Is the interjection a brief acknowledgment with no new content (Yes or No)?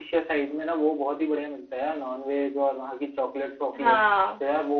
Yes